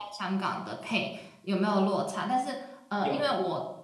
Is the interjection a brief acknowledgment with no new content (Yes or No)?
Yes